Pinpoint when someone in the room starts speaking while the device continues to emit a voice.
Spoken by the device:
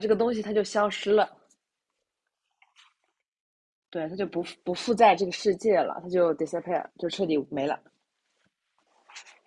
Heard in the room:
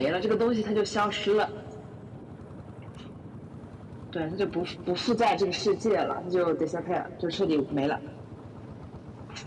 none

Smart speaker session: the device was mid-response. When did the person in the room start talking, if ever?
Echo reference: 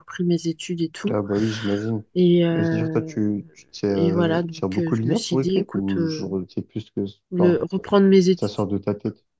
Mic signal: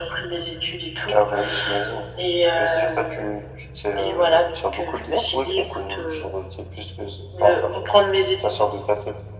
none

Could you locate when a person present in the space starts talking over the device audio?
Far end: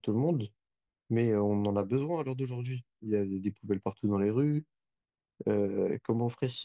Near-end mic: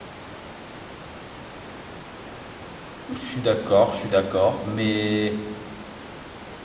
3.1 s

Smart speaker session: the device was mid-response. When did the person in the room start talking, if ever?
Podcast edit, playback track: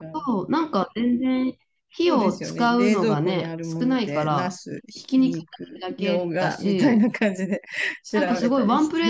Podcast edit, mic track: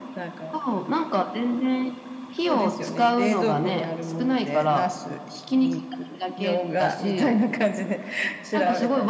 none

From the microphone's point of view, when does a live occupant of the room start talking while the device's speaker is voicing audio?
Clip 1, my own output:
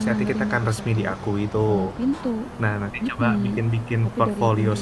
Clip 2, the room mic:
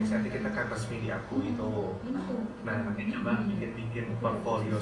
1.3 s

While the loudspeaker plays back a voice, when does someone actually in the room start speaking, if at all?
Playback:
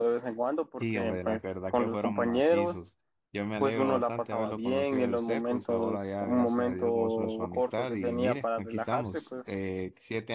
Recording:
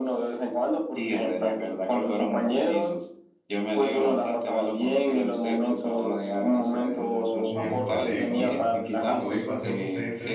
7.5 s

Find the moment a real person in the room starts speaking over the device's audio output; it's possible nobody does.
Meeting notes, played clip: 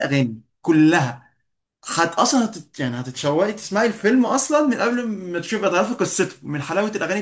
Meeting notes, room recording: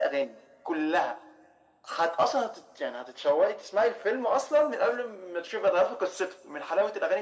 none

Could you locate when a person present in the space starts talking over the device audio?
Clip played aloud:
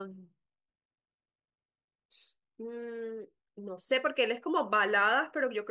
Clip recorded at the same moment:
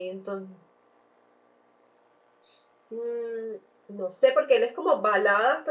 none

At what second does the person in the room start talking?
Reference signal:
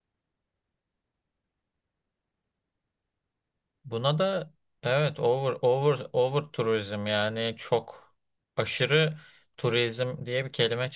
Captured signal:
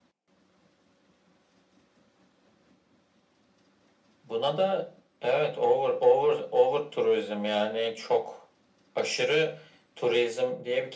none

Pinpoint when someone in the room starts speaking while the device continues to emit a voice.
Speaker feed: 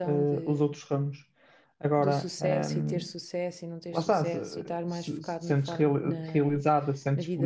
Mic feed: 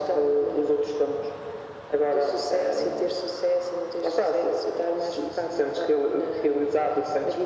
none

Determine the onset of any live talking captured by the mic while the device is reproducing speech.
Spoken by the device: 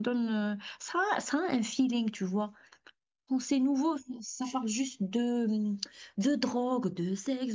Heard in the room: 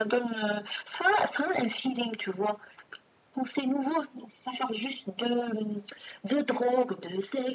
none

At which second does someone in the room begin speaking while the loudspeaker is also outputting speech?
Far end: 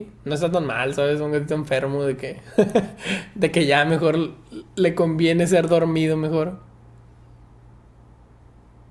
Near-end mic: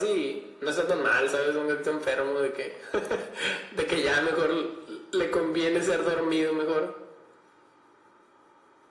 none

